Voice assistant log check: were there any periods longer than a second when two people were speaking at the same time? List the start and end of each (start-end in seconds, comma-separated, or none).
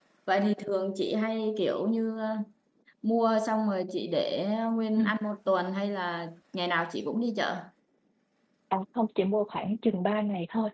none